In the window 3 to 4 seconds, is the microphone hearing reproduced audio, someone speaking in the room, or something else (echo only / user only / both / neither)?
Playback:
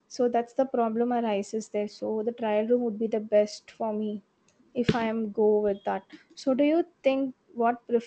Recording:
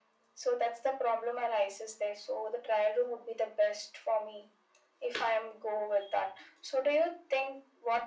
echo only